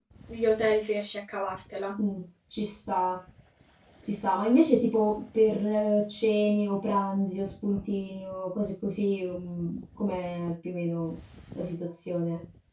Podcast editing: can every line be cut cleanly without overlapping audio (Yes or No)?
Yes